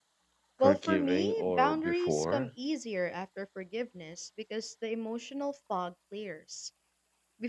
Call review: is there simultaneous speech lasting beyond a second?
Yes, from 0.6 s

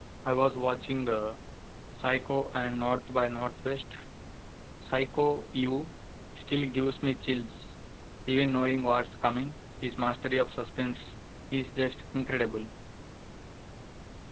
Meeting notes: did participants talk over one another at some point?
No

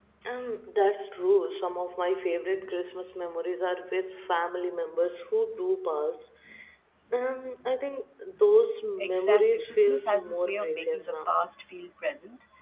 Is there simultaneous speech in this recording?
Yes, from 9.0 s

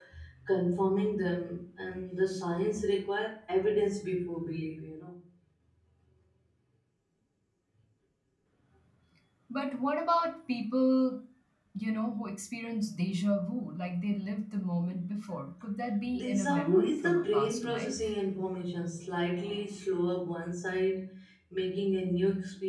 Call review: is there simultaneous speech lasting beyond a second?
Yes, from 16.0 s

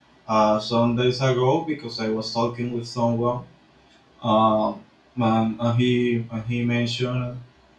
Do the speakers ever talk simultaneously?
No

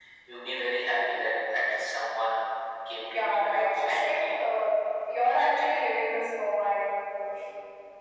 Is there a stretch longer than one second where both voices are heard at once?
Yes, from 3.0 s

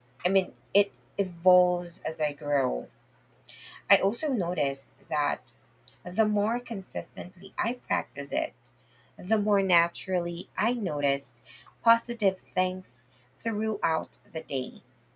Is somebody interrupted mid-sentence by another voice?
No

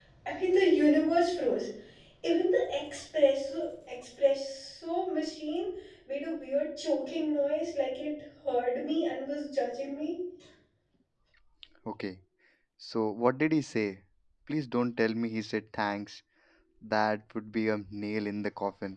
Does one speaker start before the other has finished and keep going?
No

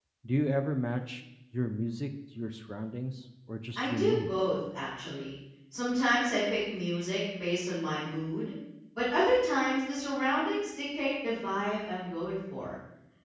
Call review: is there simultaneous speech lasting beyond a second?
No

